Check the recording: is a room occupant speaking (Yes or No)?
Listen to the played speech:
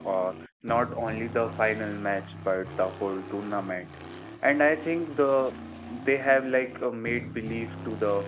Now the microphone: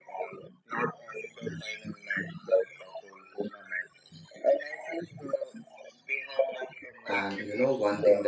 Yes